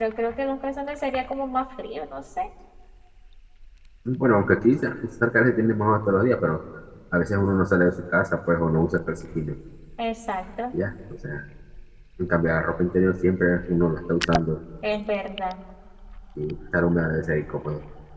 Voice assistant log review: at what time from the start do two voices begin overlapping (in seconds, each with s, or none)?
none